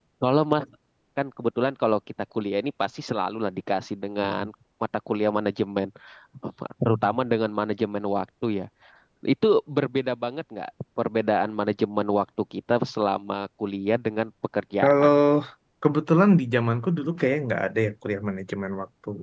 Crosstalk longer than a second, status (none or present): none